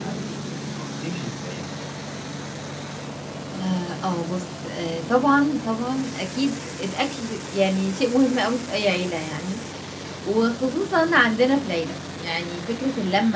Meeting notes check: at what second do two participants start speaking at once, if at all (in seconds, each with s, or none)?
none